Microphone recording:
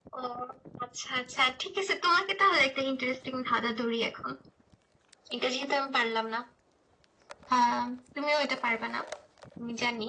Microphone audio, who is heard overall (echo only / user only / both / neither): echo only